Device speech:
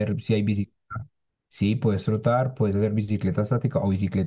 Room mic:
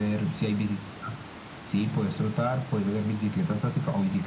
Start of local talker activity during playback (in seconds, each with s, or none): none